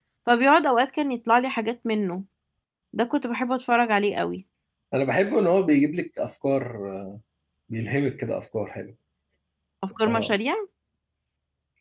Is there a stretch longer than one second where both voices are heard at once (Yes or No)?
No